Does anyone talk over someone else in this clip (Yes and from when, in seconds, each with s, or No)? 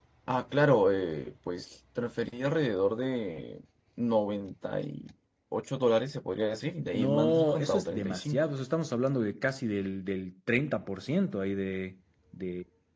Yes, from 6.9 s